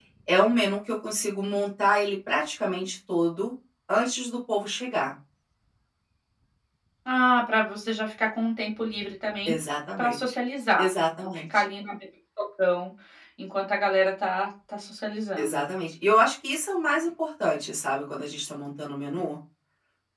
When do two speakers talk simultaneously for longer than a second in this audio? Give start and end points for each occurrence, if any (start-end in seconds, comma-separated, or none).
none